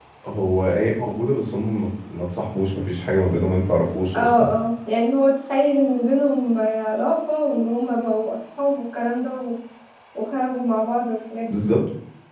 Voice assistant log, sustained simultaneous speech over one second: none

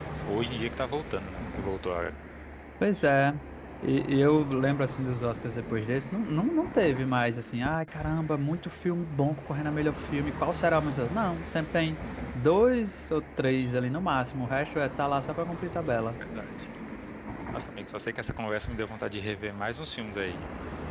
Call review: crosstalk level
none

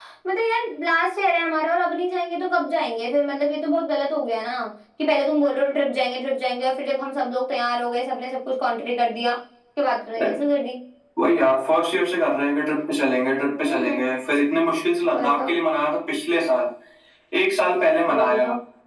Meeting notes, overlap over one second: none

